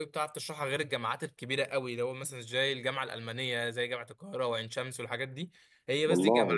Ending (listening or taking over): listening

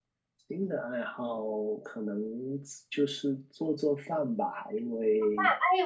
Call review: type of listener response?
taking over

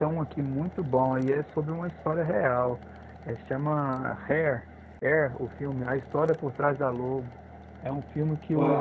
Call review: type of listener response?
listening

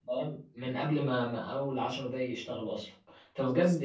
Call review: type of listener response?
listening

